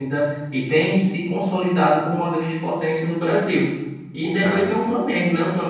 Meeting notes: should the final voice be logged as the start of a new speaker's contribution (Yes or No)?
No